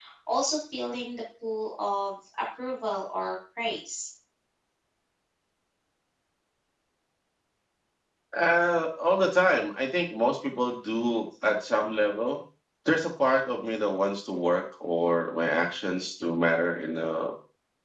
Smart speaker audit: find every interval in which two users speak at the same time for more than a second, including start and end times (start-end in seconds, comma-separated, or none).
none